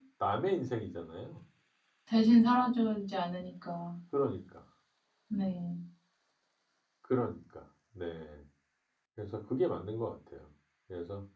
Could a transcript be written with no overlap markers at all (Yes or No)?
Yes